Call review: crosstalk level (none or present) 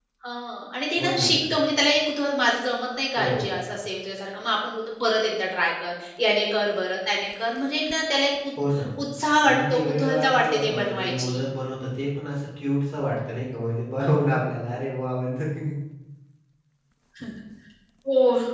present